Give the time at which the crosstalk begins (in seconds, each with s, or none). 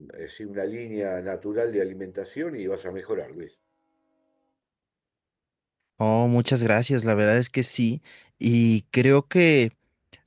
none